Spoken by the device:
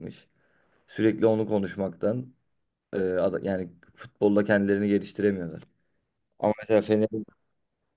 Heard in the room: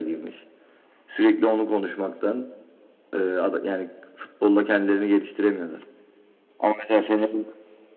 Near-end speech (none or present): none